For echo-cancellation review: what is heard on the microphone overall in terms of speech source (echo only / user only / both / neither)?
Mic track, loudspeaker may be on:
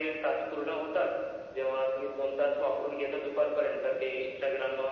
echo only